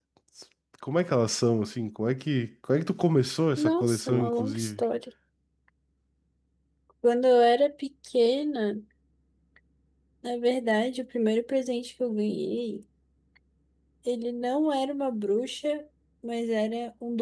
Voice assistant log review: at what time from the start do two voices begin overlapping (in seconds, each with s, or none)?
3.6 s